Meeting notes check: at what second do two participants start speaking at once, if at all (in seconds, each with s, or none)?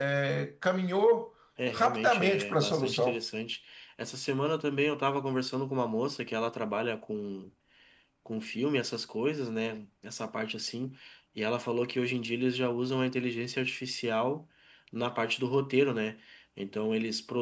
1.6 s